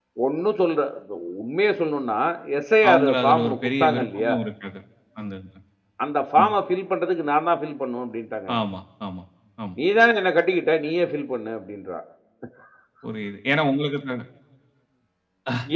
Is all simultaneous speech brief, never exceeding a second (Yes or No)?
No